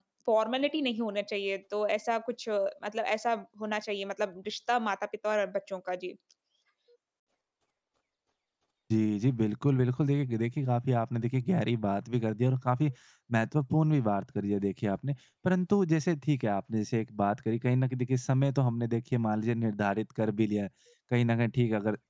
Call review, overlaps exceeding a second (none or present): none